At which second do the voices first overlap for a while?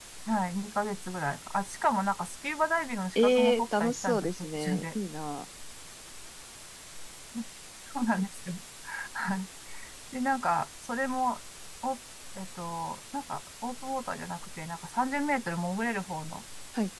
3.1 s

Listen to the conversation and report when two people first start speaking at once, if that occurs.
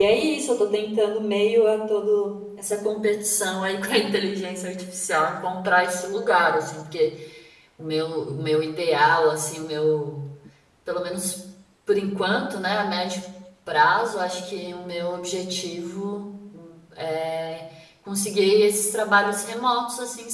none

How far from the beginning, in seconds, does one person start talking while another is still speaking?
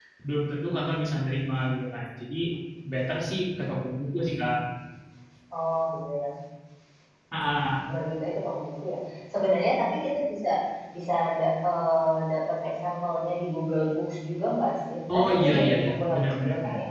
15.1 s

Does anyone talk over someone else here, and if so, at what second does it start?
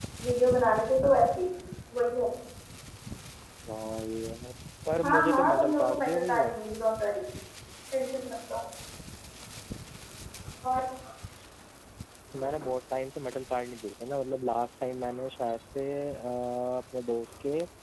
5.0 s

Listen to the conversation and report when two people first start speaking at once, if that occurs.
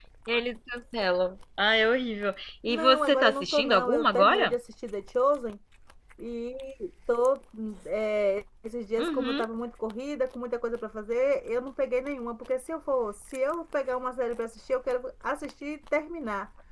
2.7 s

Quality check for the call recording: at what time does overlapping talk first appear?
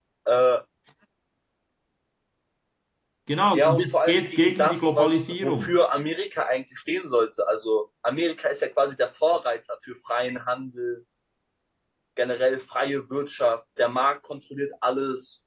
3.5 s

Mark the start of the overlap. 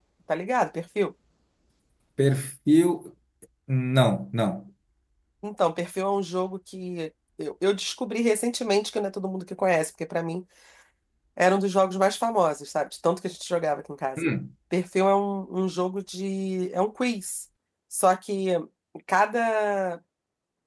none

